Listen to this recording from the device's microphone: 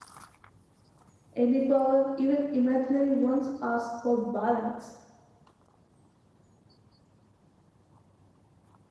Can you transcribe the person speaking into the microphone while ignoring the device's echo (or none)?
Any power, even imaginary ones, asks for balance.